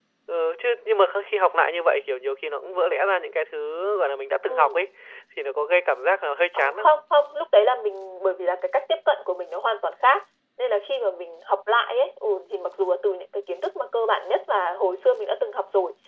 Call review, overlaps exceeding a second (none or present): none